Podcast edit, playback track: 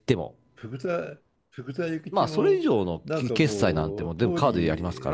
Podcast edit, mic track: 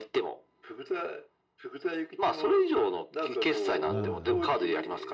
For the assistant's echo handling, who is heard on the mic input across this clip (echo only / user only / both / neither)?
both